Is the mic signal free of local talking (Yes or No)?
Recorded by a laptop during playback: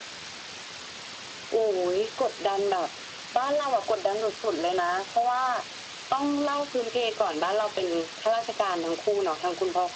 Yes